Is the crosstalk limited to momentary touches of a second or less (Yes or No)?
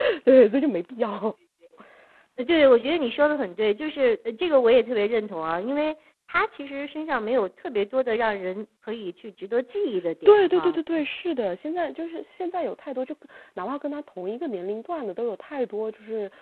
Yes